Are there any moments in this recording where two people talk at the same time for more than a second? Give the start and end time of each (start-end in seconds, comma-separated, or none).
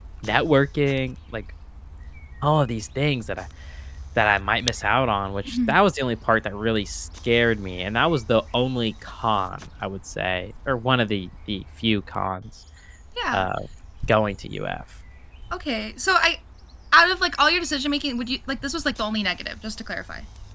none